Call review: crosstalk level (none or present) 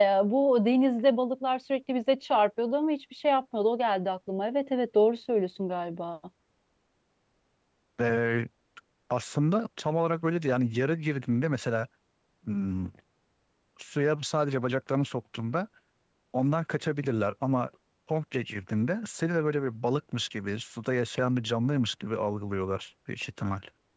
none